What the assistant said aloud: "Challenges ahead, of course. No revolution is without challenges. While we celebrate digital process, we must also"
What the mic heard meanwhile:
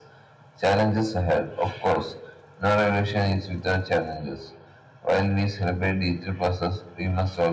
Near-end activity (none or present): none